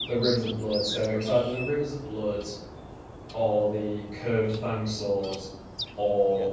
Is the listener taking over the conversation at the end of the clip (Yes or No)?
No